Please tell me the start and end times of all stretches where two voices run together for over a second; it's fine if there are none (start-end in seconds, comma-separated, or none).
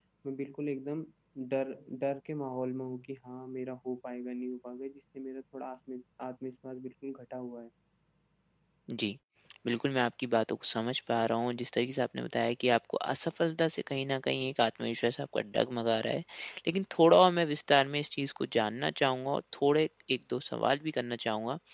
none